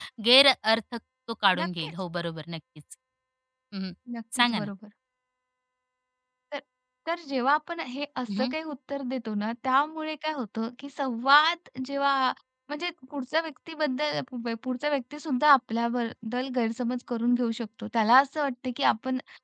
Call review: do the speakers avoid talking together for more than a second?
Yes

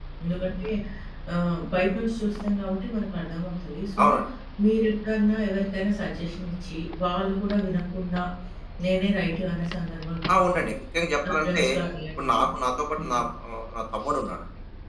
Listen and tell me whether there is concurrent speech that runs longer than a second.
No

